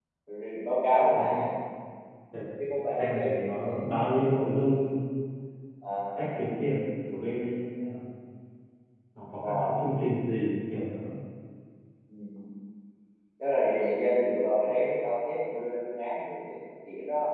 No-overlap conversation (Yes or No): No